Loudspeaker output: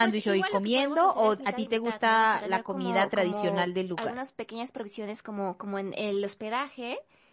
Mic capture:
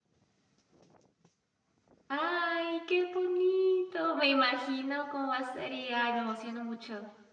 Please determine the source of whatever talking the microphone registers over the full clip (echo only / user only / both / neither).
user only